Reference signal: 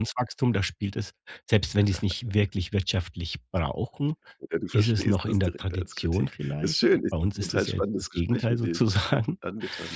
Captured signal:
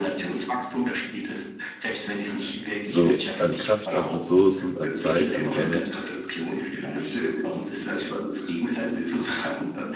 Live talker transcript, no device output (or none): so an Kraft, an Ressourcen, an Zeit, an Geld?“